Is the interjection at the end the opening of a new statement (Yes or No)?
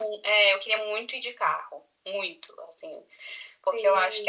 No